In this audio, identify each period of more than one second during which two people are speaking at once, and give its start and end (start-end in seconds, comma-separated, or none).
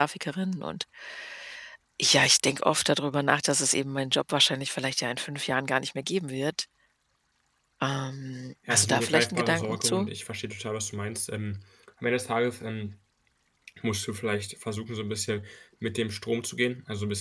8.7-10.1